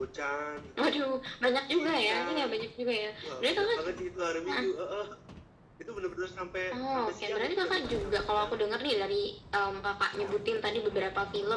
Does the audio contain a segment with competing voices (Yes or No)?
Yes